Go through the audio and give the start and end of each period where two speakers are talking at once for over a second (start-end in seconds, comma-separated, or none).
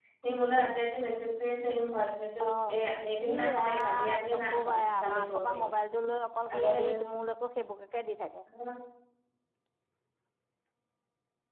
3.3-5.6